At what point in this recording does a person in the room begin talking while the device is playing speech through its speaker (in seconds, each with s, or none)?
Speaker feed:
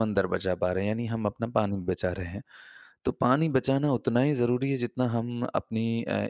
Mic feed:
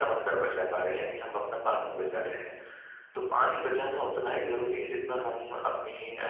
none